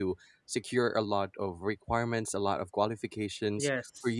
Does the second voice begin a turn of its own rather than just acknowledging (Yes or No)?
No